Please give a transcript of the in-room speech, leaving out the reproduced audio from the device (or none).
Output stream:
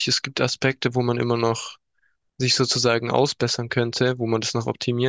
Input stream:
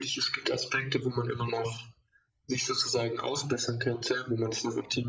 none